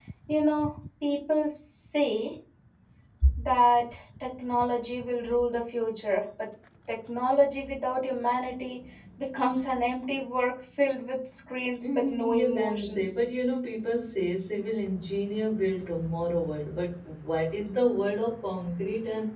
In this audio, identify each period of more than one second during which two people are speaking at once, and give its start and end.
11.8-13.2

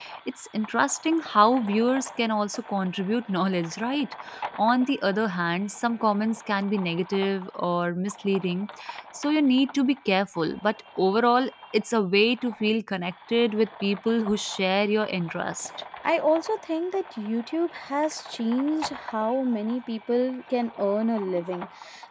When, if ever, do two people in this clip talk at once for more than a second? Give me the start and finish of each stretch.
none

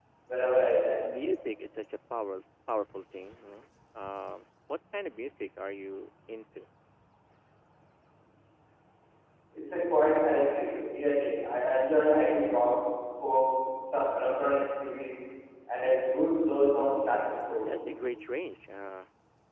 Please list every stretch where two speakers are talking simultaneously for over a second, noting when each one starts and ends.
none

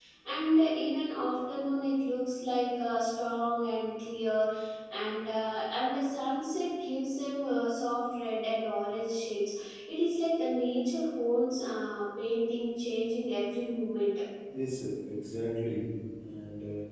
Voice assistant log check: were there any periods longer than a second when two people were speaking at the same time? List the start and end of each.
none

